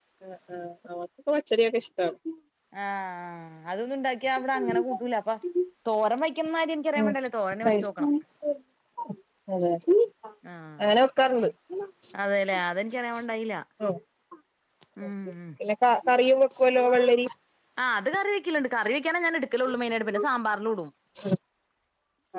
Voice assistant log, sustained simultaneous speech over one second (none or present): none